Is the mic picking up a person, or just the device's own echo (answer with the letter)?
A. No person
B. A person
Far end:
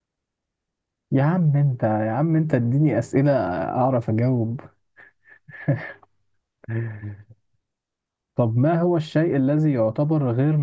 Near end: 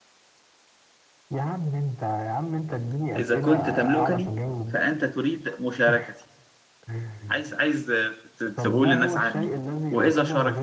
B